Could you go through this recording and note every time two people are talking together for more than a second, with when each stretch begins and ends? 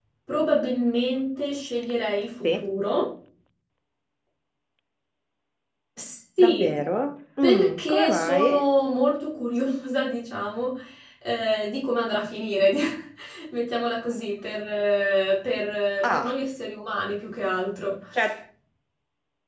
7.4-8.7

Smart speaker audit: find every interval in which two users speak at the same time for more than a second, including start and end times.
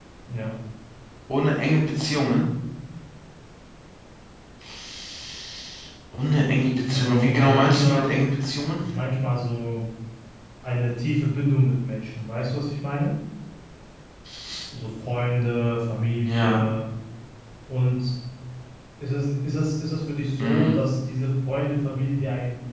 6.9-8.2

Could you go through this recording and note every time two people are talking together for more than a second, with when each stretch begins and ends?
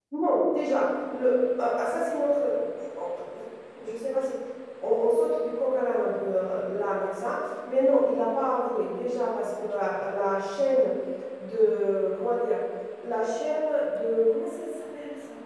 none

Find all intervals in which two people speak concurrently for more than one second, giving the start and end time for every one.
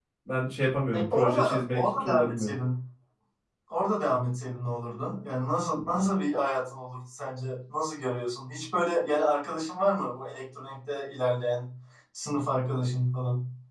0.9-2.5

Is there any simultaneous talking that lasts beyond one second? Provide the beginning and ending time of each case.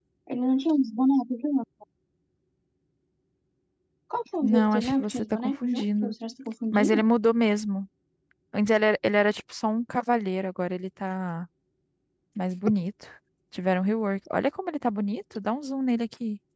4.4-6.1

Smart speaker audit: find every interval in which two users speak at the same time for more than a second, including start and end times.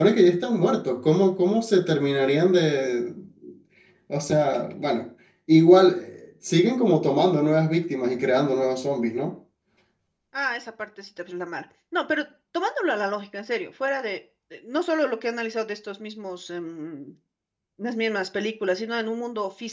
none

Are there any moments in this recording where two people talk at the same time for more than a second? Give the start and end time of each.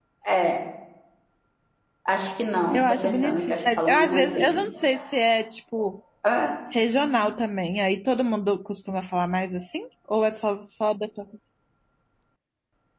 2.7-4.6

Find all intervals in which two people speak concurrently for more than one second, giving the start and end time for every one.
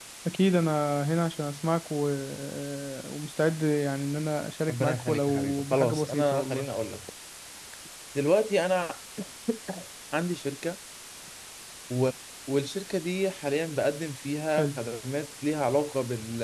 4.7-6.7

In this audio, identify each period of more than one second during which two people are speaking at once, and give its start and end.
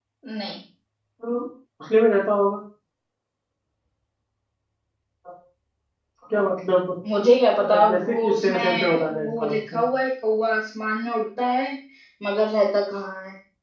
7.6-9.8

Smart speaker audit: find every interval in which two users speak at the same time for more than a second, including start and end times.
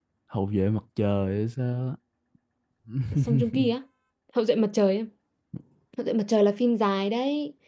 none

